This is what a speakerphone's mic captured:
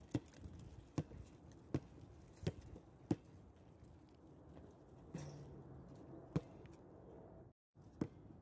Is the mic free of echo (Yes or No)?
Yes